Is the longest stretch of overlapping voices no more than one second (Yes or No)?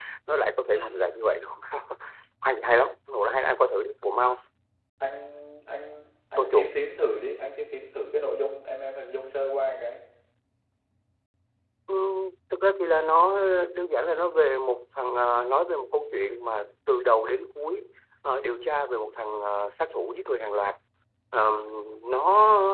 Yes